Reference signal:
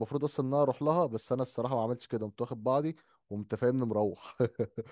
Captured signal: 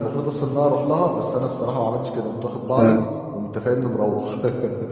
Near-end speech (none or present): present